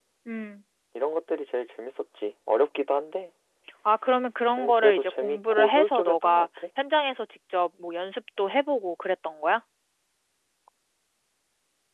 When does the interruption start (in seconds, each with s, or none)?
4.6 s